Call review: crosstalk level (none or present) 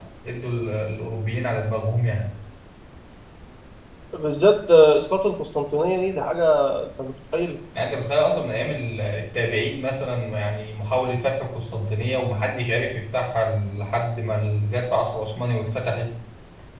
none